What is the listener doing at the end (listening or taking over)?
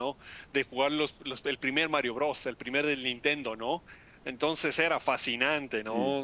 listening